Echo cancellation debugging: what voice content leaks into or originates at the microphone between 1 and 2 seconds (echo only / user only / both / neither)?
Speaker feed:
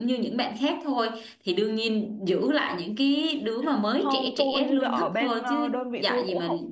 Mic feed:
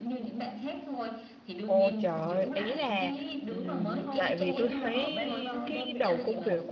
both